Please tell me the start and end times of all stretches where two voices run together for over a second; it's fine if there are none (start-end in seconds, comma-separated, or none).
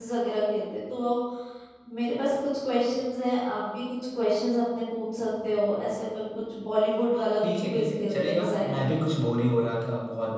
7.7-8.9